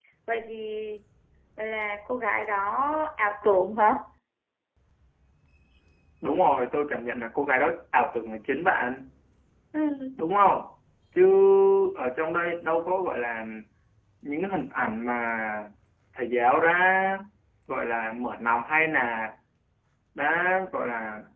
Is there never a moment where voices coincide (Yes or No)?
Yes